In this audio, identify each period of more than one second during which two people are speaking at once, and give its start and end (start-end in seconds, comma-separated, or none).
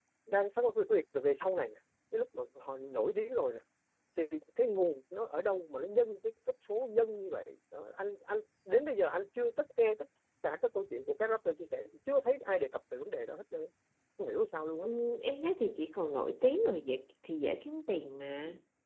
none